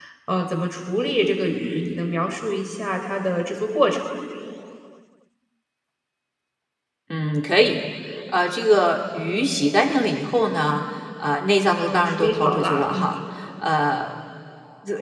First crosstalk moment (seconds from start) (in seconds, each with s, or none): 11.8 s